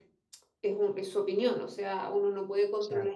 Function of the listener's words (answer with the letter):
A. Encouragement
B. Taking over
A